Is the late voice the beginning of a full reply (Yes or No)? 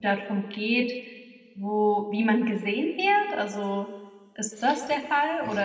Yes